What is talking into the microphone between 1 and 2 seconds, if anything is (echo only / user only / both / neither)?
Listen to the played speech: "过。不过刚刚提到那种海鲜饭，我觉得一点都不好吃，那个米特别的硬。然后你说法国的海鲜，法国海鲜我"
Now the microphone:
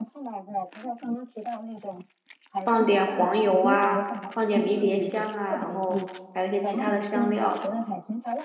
echo only